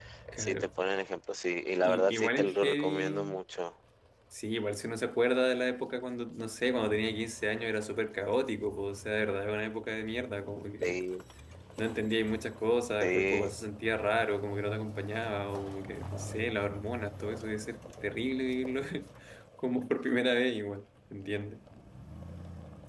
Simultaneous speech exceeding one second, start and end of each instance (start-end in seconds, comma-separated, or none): 1.8-3.4